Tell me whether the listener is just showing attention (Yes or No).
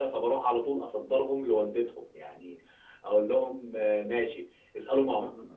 Yes